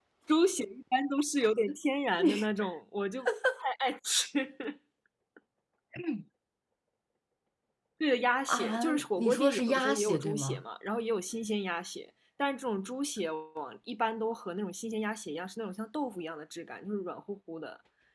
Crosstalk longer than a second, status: present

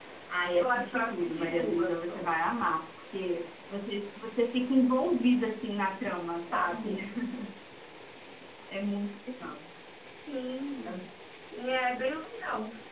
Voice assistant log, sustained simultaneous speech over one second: present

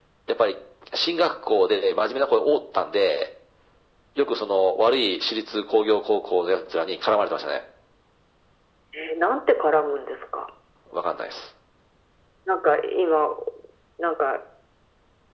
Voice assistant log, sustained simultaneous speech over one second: none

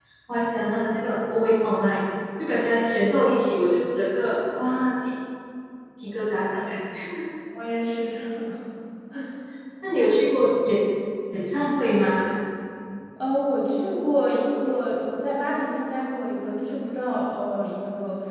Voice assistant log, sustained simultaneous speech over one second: none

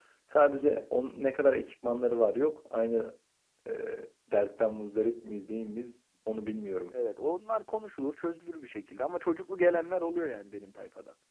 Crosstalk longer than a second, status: none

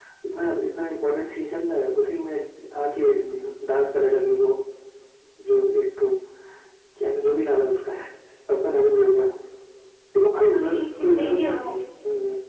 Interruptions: present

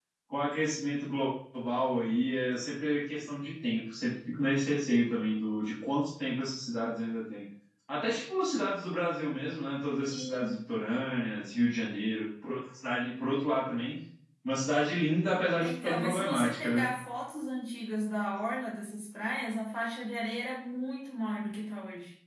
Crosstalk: present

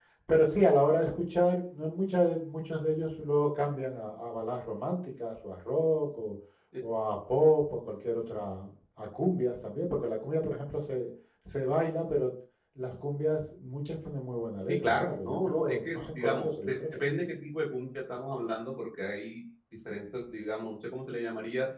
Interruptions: present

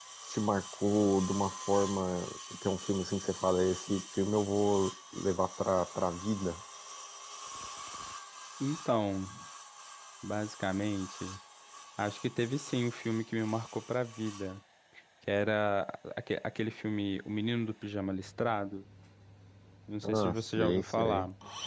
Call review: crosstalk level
present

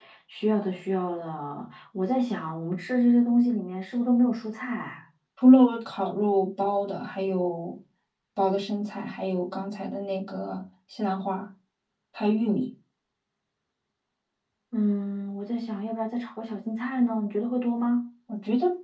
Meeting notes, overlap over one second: none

